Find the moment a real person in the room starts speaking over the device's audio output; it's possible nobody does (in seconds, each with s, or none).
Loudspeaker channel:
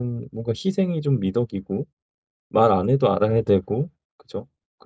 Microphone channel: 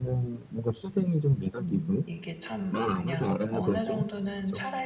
1.6 s